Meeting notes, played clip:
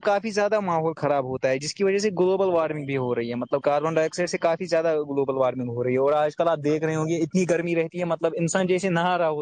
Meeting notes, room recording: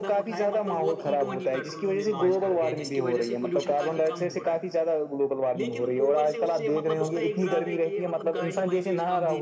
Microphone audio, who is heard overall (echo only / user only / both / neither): both